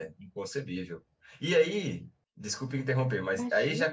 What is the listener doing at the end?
listening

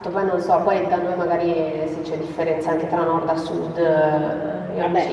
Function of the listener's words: taking over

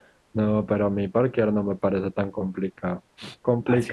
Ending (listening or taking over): listening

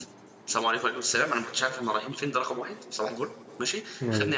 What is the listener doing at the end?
listening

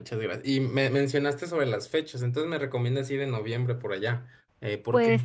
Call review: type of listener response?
taking over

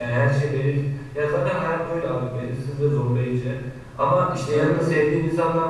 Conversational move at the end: listening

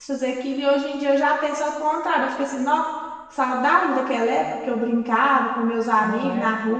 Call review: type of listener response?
listening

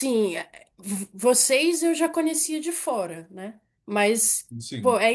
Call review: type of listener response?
listening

